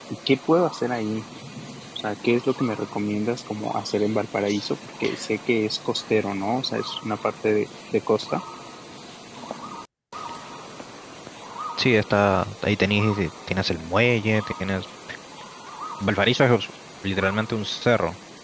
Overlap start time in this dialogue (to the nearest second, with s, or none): none